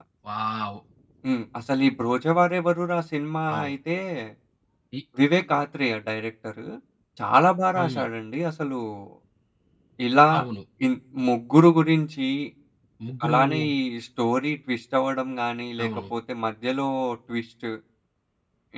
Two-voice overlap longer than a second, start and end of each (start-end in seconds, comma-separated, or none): none